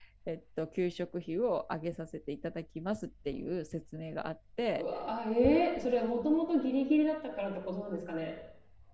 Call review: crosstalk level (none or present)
none